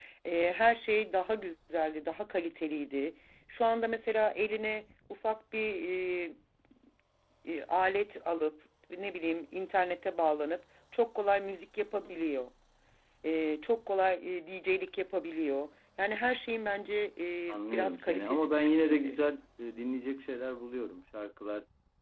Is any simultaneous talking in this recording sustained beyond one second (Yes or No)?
Yes